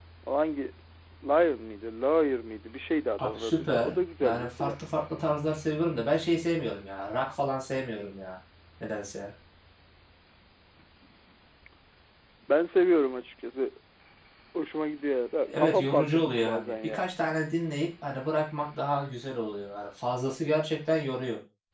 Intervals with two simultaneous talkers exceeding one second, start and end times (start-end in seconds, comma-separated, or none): 3.2-4.7, 15.4-17.1